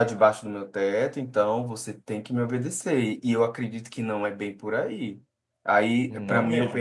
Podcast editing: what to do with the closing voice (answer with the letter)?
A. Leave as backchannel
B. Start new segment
A